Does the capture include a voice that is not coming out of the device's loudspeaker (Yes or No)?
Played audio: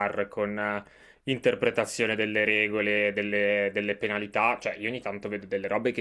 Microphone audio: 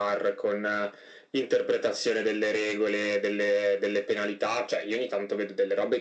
No